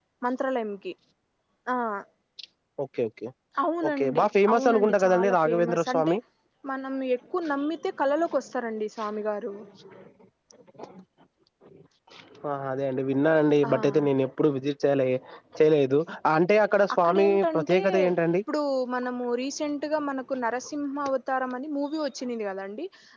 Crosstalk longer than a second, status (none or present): present